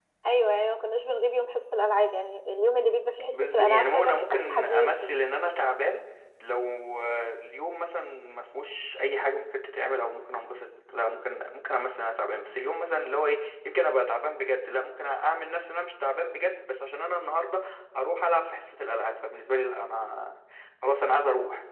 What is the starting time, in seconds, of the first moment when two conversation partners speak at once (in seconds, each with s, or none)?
3.3 s